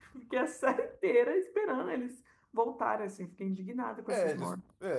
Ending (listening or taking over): taking over